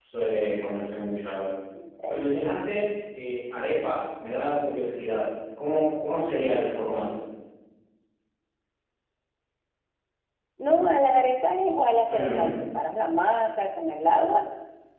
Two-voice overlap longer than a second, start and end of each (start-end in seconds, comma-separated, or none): none